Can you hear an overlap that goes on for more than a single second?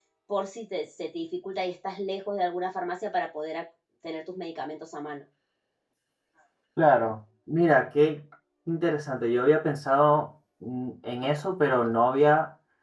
No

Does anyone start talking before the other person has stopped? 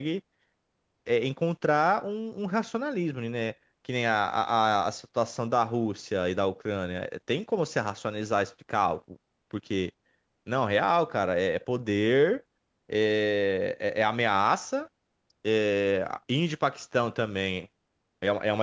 No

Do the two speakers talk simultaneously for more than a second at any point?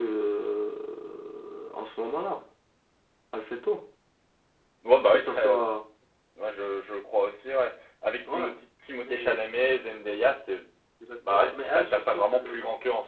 Yes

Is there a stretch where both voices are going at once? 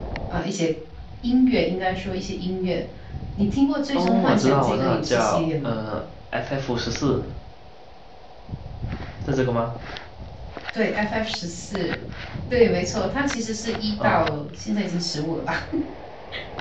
Yes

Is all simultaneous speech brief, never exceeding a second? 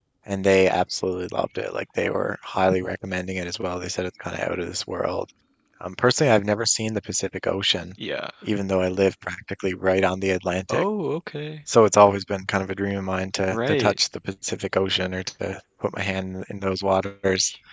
Yes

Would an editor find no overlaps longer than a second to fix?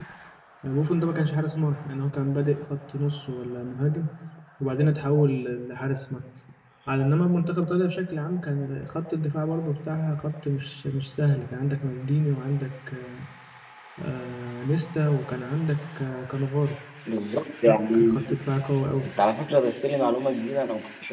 Yes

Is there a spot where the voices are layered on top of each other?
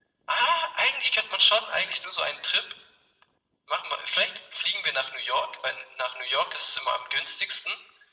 No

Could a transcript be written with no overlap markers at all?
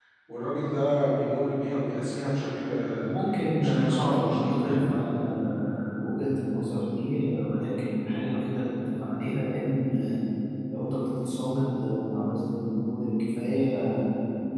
No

